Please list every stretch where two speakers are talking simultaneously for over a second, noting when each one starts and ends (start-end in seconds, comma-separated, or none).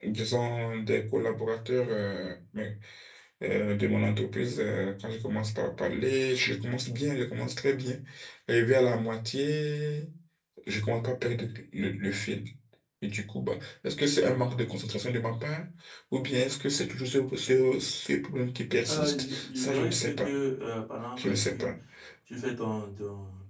18.9-20.3